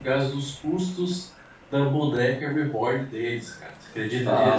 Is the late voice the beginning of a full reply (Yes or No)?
Yes